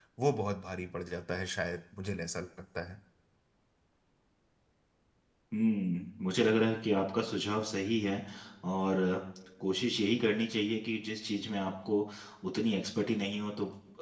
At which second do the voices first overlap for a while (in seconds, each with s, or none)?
none